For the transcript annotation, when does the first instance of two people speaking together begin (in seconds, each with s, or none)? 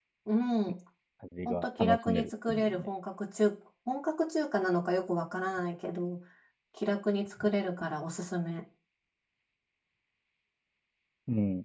1.4 s